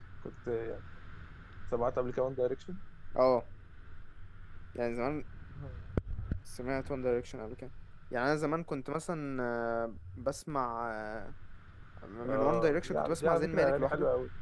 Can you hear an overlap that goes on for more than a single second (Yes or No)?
Yes